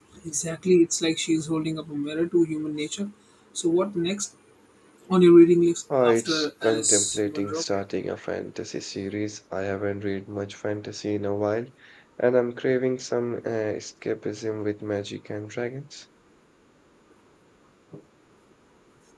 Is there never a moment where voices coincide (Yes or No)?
No